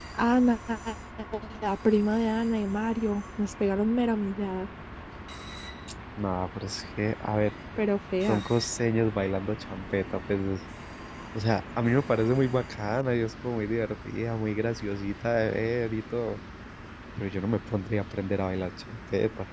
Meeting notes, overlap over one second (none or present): none